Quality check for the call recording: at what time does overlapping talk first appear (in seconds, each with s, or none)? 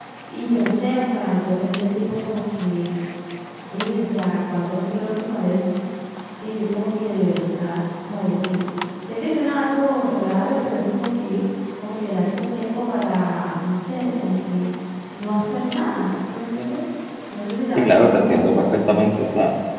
17.8 s